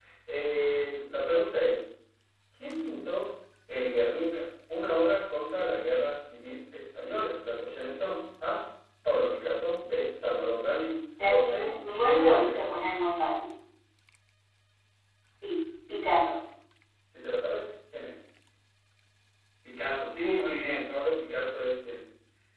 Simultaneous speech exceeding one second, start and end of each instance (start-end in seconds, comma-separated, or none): 11.3-12.6